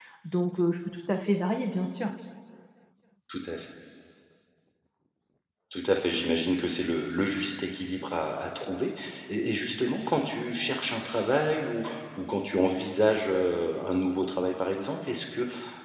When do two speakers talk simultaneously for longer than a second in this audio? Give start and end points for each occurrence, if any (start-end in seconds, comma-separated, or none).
none